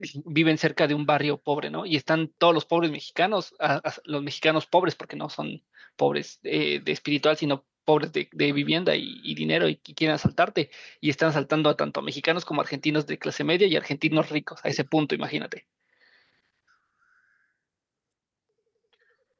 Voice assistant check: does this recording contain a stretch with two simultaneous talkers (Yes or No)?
No